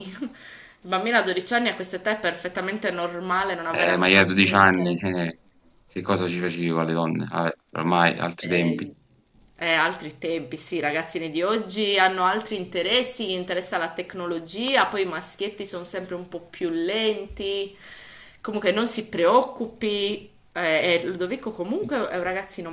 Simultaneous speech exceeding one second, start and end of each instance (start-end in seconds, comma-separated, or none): 3.7-5.3